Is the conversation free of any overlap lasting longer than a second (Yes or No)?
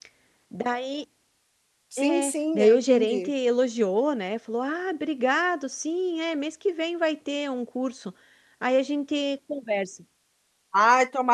No